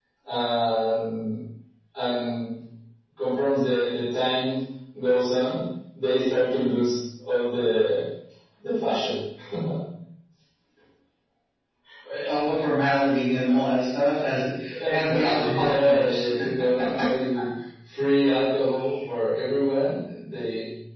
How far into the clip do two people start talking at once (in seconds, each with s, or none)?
14.9 s